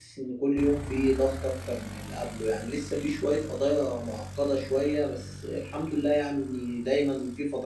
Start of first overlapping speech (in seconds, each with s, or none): none